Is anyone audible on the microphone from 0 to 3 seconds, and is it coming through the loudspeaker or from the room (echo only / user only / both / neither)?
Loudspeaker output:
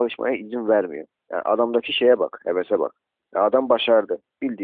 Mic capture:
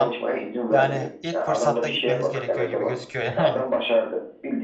both